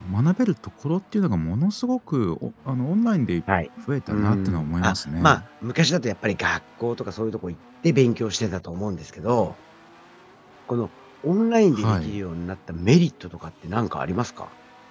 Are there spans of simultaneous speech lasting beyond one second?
Yes, from 4.1 s

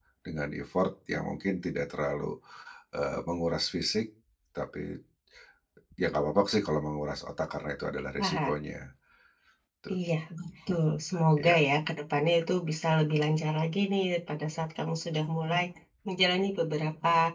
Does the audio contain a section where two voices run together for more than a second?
No

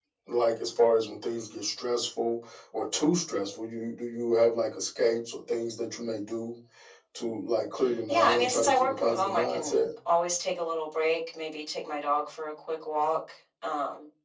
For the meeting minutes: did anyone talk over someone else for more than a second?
Yes, from 8.1 s

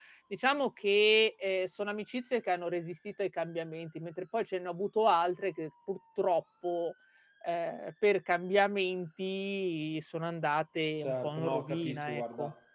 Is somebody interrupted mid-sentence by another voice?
Yes, from 11.0 s

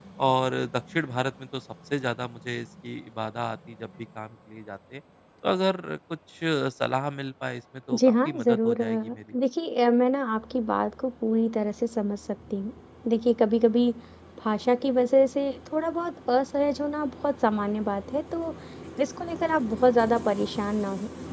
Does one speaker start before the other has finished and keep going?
Yes, from 7.9 s

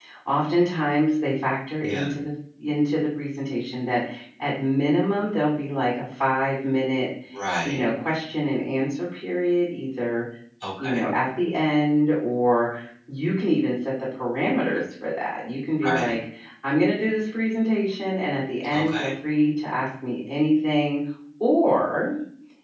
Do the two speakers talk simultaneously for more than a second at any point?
No

